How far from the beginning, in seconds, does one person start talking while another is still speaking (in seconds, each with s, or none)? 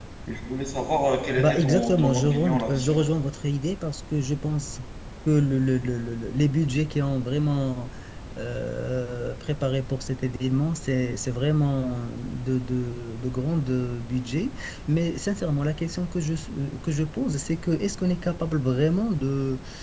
1.4 s